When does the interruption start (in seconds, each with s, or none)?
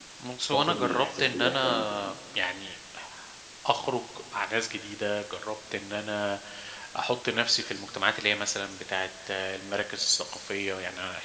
0.5 s